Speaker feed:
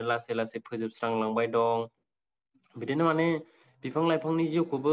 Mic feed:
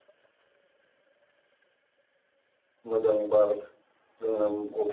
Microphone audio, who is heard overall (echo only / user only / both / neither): user only